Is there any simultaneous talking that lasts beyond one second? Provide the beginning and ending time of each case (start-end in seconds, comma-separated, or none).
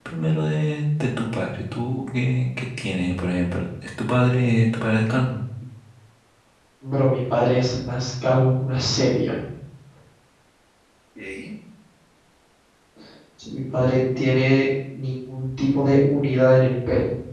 none